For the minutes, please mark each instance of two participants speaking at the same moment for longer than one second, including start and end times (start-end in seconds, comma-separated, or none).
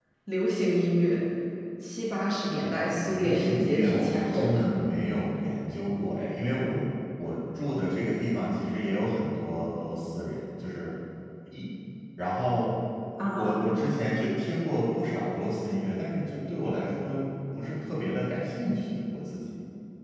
3.1-4.6